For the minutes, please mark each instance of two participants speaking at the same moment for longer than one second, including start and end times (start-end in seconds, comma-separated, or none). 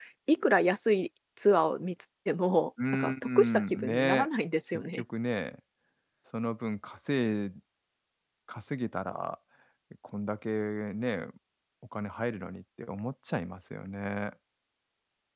2.9-4.3